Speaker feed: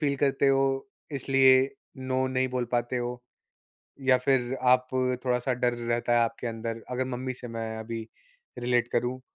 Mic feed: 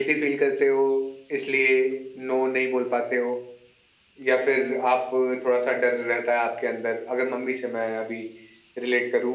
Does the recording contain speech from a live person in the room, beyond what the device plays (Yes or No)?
No